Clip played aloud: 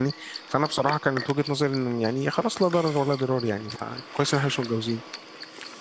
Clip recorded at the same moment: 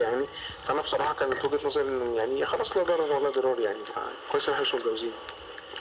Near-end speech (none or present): none